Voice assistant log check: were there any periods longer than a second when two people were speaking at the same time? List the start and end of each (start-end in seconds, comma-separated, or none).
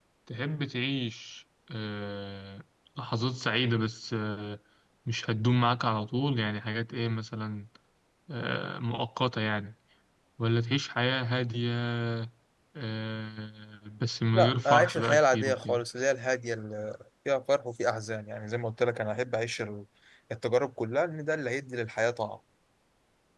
14.3-15.8